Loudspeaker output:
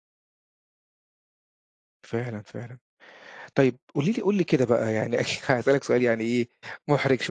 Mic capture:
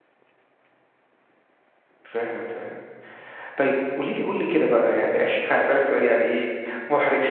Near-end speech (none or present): none